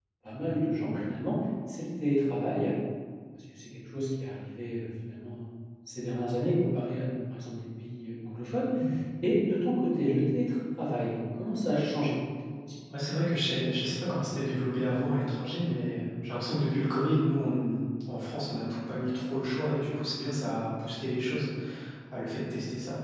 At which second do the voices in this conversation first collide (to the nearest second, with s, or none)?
none